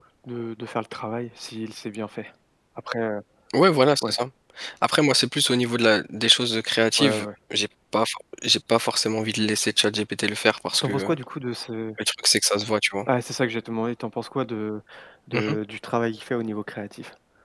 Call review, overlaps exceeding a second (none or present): none